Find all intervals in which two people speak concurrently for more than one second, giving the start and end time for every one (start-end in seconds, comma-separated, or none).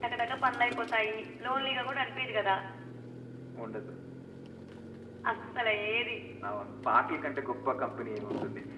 none